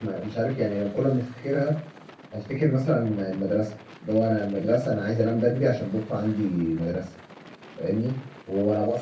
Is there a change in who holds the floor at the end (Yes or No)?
No